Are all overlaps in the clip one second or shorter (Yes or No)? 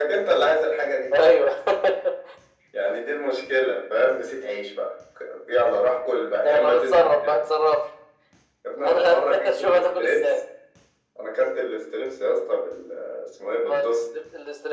No